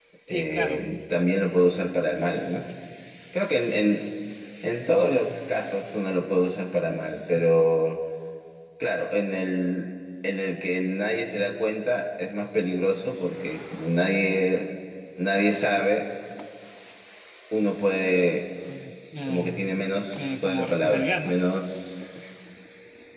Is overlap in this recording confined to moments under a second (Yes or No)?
No